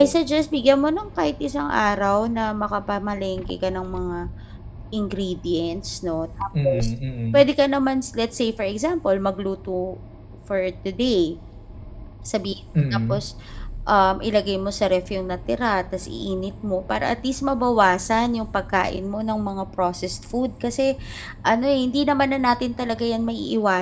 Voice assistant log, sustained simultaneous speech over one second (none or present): none